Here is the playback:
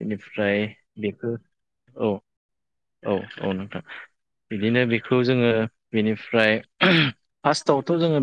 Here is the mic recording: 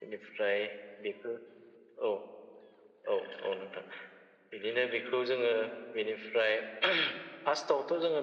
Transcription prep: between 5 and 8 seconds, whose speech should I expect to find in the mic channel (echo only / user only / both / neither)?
echo only